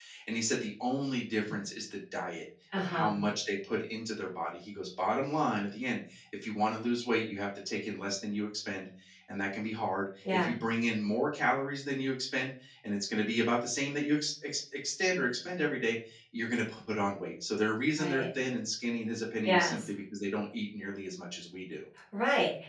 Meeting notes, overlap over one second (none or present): none